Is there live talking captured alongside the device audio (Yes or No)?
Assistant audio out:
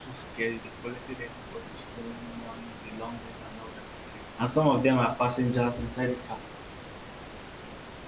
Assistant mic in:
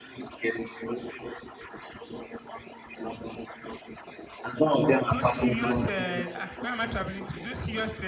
Yes